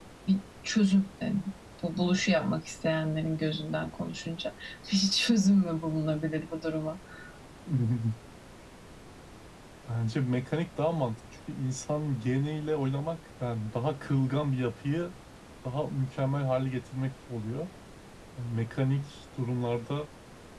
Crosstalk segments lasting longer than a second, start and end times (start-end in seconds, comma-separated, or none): none